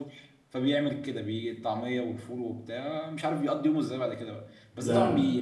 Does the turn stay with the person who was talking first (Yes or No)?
Yes